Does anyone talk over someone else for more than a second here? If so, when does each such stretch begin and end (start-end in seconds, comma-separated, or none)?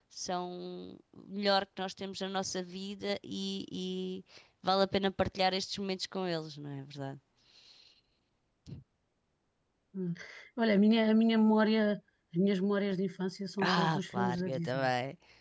13.6-14.9